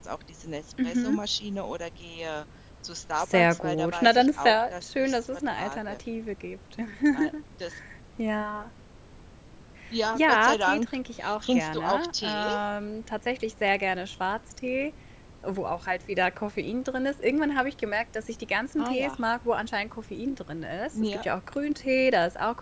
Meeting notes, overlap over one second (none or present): present